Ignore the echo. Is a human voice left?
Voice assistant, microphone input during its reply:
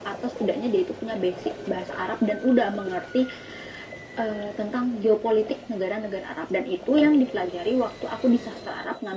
No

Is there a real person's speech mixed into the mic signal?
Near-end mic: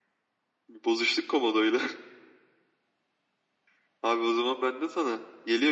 No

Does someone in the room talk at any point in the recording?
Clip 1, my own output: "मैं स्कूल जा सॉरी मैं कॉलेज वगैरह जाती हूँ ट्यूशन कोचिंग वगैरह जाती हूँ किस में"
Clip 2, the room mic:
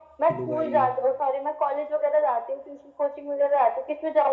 Yes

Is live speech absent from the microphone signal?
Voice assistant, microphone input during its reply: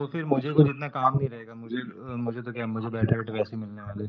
Yes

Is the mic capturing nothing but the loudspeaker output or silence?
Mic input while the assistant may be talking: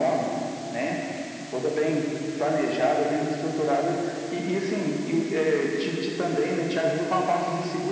Yes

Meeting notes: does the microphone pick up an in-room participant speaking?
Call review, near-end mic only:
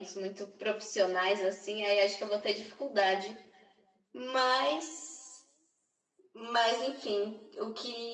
No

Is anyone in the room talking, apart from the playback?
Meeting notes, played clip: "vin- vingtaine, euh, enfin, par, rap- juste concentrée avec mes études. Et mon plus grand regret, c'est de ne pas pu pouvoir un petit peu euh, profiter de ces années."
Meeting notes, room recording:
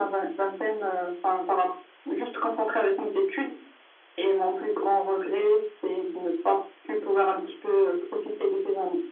No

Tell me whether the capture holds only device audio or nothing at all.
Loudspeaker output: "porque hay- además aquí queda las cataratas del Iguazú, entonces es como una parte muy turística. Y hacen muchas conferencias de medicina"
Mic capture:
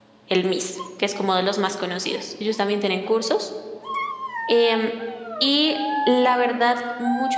No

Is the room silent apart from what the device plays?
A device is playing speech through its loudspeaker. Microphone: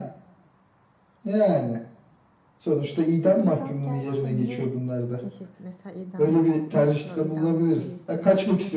No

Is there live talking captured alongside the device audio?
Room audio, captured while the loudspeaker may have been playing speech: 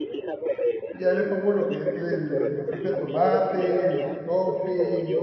Yes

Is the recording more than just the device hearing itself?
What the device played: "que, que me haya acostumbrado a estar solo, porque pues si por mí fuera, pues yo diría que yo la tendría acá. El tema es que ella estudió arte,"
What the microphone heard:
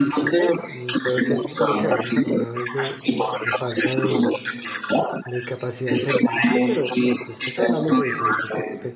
Yes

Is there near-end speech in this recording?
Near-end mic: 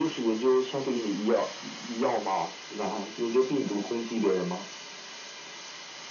No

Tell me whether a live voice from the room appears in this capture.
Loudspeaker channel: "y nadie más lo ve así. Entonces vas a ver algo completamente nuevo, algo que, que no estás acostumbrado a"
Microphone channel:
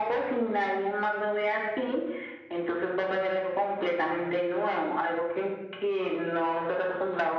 No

